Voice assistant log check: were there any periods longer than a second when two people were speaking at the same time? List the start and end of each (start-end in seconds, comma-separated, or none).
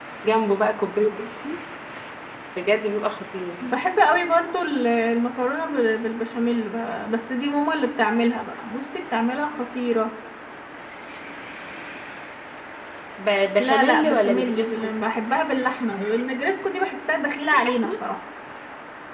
13.6-14.9